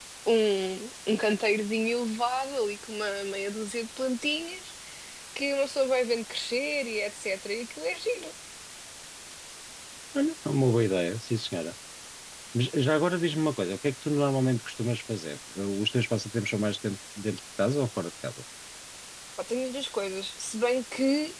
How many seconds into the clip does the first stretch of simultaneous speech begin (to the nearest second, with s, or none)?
none